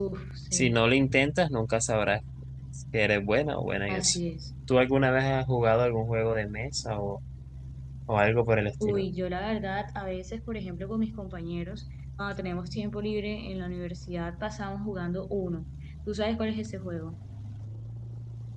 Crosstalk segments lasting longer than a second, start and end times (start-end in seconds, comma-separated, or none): none